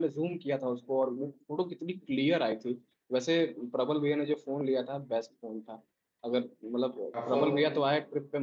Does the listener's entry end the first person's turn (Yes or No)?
No